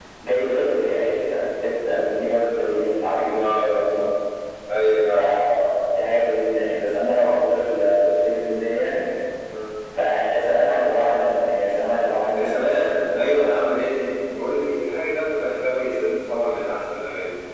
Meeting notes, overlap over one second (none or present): none